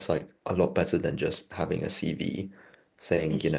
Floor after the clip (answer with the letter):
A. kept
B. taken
A